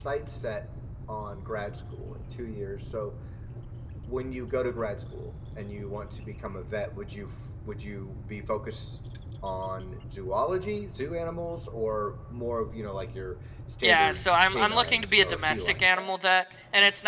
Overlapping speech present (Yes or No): Yes